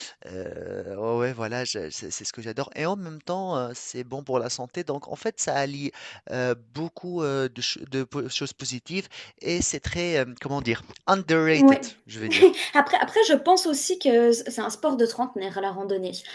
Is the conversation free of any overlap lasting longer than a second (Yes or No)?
Yes